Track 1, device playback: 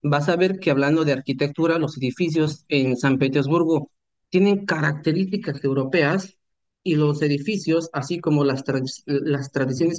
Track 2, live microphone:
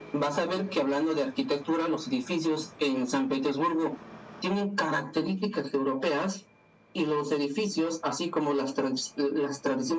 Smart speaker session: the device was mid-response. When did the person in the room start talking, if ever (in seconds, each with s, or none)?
none